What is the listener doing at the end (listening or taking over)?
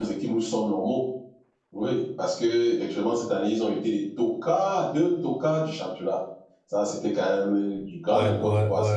taking over